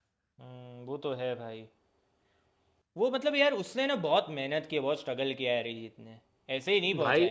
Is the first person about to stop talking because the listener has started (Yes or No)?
Yes